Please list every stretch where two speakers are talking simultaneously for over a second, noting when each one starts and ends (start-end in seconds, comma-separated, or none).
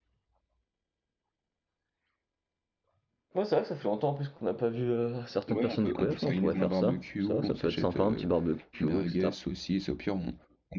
5.5-8.3